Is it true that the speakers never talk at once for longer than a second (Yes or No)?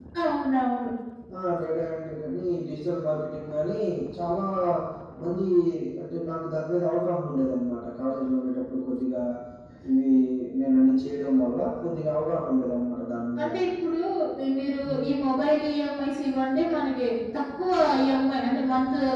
Yes